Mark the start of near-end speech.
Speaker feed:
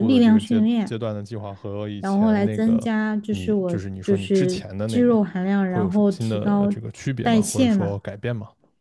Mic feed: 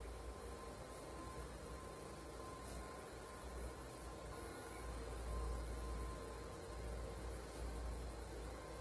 none

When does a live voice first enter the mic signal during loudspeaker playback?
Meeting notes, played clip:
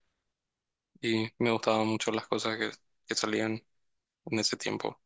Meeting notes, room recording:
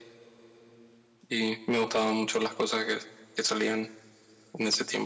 none

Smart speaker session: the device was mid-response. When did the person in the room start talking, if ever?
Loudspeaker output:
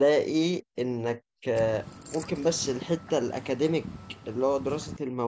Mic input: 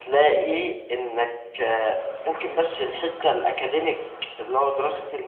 none

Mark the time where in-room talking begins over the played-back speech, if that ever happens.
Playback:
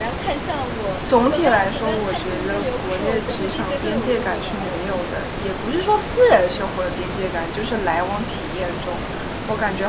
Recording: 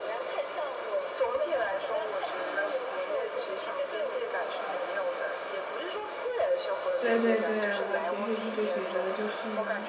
7.0 s

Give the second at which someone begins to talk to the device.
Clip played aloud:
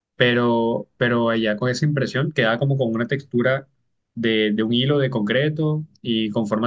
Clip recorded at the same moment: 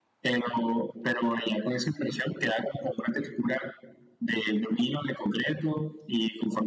none

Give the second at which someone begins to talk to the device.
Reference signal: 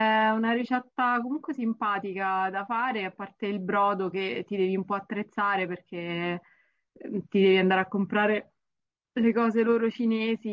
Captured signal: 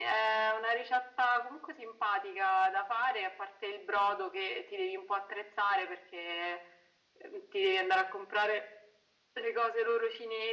none

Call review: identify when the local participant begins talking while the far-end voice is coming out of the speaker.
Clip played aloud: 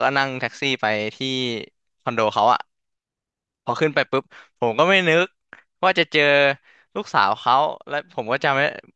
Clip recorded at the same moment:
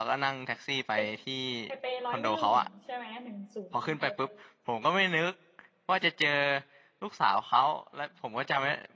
0.9 s

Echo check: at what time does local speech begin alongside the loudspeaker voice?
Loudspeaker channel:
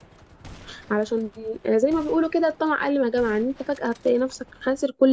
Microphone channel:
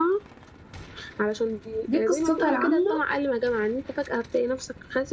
1.9 s

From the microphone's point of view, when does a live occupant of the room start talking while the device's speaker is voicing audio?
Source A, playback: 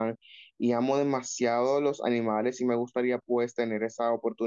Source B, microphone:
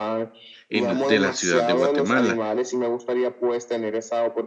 0.7 s

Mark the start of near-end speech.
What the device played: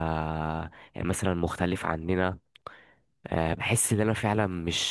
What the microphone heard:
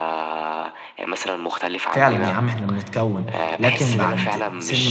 1.9 s

